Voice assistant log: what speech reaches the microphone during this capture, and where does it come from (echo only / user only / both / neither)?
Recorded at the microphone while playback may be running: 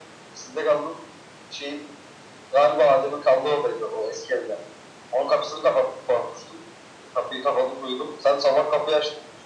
echo only